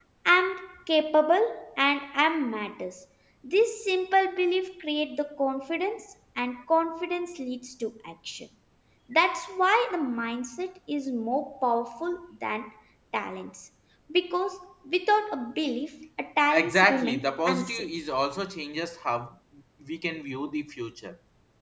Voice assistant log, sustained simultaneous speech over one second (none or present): present